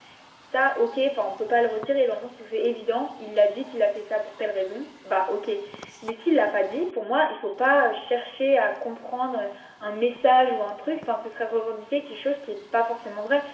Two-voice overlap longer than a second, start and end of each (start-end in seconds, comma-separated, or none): none